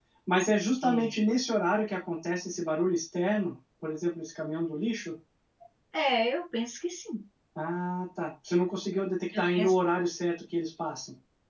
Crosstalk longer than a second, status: none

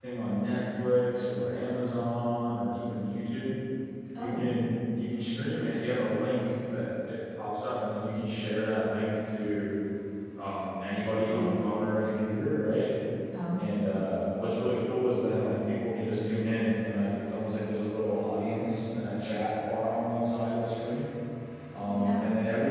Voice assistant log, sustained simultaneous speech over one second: none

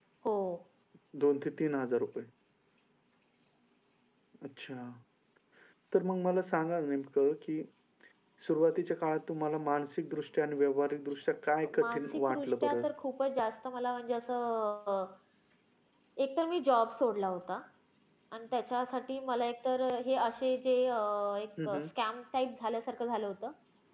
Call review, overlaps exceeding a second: present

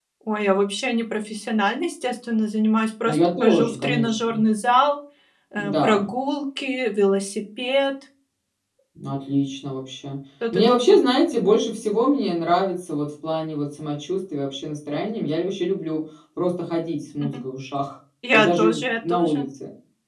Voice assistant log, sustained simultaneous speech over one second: present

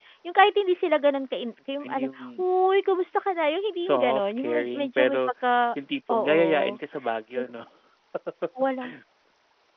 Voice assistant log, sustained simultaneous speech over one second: present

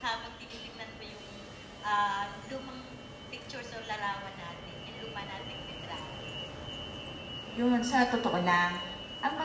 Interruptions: none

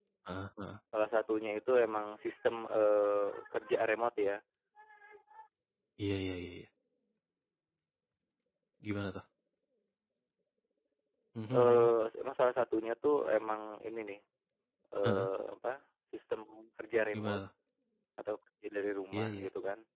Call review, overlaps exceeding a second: none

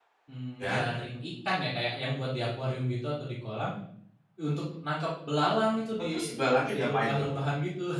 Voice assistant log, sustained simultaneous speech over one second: none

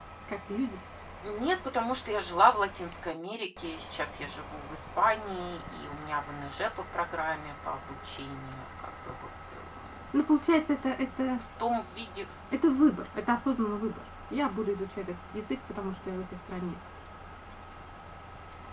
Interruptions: none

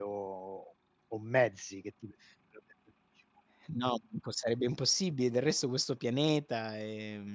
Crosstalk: none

